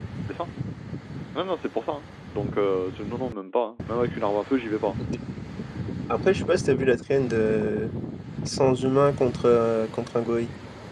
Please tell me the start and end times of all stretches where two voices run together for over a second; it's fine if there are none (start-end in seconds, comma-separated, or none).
none